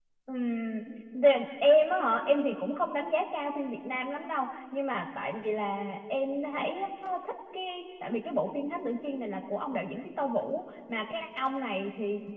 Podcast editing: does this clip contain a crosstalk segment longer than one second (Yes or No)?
No